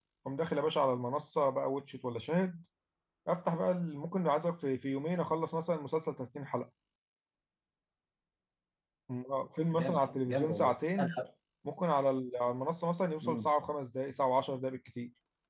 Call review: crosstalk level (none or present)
present